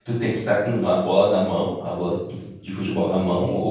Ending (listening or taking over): taking over